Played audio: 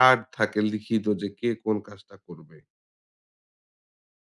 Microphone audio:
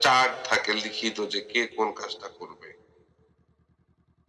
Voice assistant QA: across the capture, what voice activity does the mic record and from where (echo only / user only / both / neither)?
echo only